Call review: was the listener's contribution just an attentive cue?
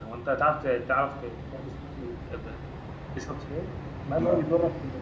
Yes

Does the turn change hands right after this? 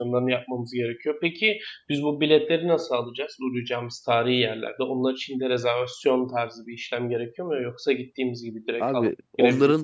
Yes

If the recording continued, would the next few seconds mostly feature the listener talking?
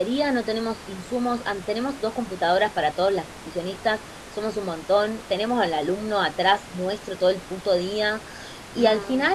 No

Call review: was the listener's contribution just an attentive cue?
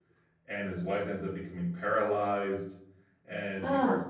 Yes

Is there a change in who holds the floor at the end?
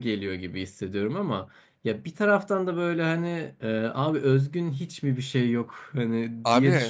Yes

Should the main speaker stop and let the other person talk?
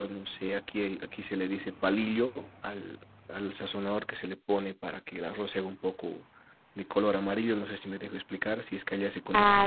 Yes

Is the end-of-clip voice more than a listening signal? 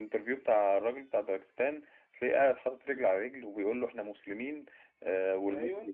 No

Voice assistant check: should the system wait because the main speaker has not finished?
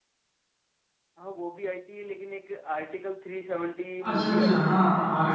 No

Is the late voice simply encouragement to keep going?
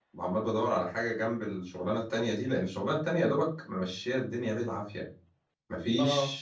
Yes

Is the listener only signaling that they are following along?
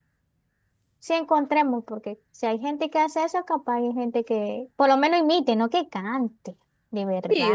No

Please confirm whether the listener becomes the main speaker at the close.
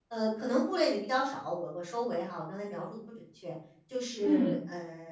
No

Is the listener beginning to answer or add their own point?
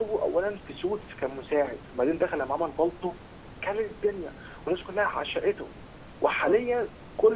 No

